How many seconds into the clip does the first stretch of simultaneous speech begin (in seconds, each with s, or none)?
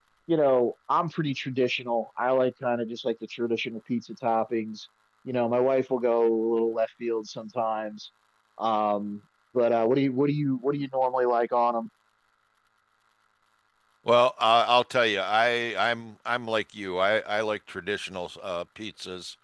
none